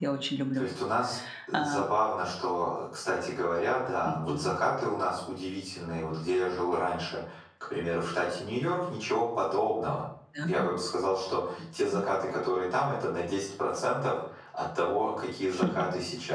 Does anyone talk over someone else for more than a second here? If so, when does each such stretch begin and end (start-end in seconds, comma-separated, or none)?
none